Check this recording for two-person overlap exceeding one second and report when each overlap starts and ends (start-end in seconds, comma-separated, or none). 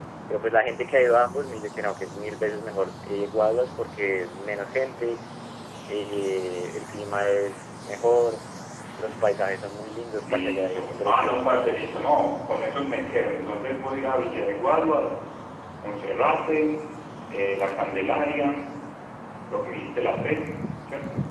10.2-11.5